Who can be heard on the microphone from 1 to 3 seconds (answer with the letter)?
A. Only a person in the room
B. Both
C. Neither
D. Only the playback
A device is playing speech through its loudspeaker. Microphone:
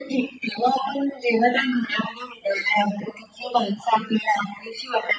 D